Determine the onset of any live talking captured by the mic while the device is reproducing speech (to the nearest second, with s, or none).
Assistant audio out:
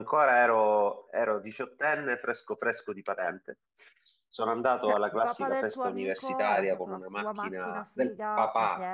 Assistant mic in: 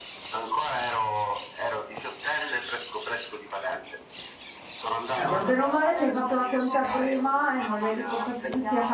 5 s